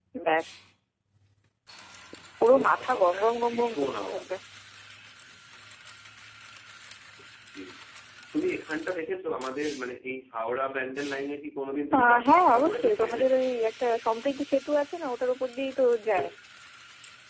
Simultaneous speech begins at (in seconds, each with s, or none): 2.5 s